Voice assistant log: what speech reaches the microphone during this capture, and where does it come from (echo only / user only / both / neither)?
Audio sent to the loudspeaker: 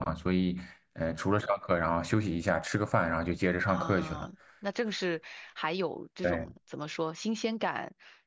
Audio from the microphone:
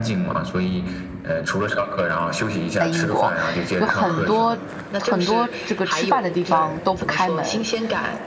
both